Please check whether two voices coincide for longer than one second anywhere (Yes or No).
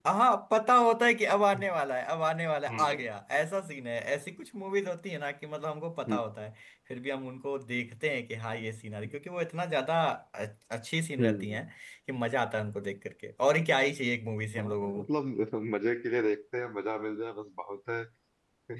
No